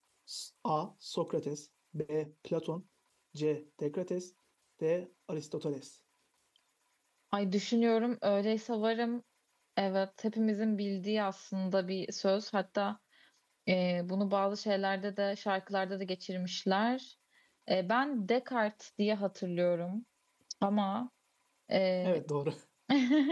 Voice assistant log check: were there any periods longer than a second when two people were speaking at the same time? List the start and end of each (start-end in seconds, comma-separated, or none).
none